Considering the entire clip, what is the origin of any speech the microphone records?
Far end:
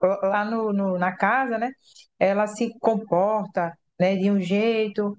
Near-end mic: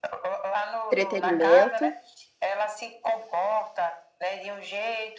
both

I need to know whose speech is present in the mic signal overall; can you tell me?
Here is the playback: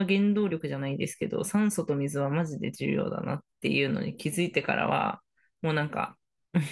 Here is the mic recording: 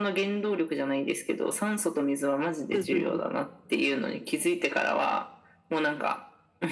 both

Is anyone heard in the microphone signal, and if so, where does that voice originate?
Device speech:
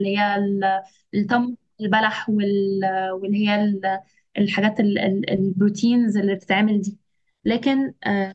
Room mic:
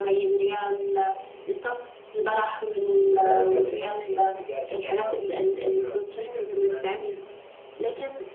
both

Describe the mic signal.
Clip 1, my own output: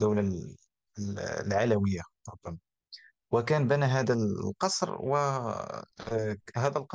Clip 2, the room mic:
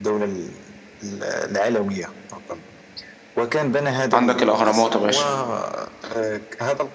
both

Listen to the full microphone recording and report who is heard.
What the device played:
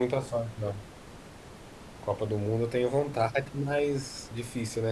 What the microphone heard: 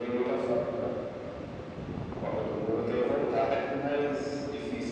echo only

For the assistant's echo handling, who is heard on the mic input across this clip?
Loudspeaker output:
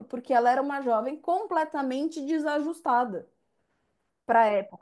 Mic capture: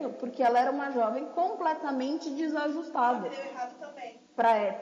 both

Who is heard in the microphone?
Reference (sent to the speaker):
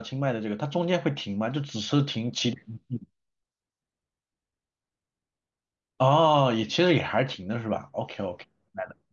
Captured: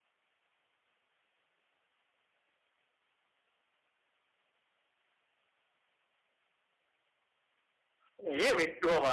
user only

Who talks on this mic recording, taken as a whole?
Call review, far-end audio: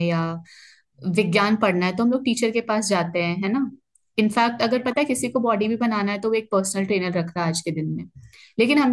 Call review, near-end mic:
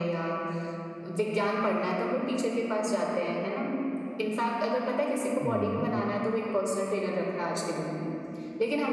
both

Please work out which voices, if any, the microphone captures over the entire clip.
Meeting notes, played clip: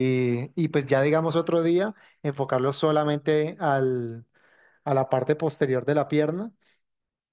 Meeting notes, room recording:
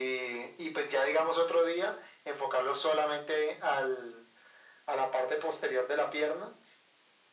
echo only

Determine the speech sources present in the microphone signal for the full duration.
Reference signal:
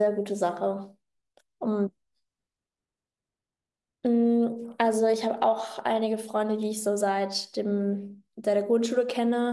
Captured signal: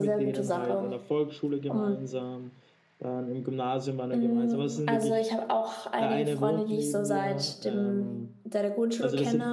both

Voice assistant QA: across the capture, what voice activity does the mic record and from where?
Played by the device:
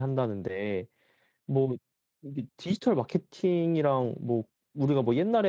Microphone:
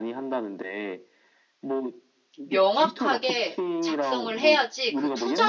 both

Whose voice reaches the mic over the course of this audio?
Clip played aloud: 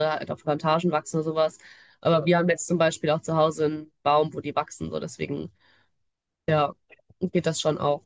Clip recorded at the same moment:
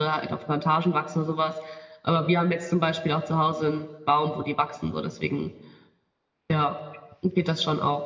echo only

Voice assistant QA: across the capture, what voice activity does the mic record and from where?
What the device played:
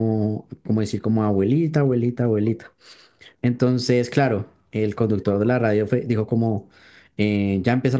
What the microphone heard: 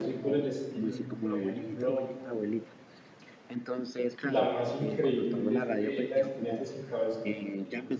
both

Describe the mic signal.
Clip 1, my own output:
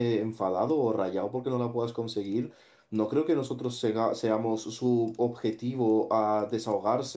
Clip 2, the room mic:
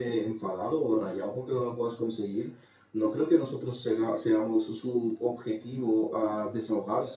echo only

